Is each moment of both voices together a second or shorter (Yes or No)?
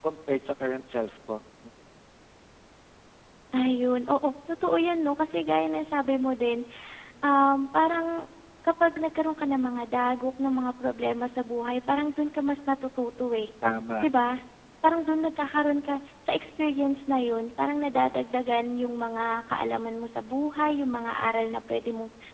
Yes